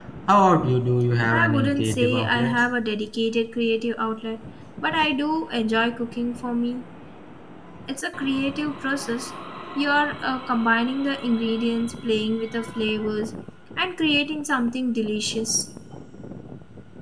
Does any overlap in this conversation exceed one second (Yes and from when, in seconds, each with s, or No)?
Yes, from 1.3 s